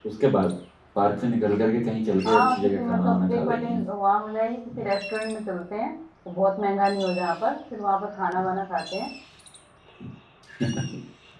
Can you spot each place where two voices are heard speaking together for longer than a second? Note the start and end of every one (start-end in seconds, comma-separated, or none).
2.3-3.7